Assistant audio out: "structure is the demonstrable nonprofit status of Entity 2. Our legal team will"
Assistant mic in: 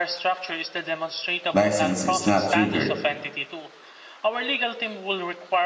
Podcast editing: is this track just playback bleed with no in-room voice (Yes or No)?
No